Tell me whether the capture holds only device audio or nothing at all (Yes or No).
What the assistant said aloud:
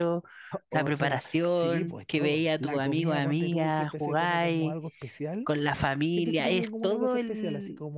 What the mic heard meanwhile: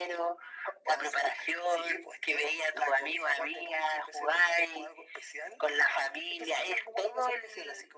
Yes